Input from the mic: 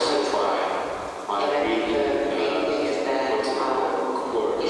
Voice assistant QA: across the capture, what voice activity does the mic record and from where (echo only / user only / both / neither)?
echo only